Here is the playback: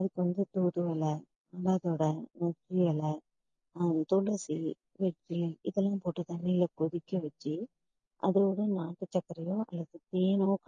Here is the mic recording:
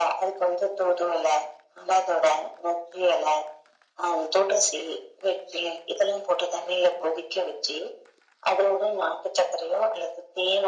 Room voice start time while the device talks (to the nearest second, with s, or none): none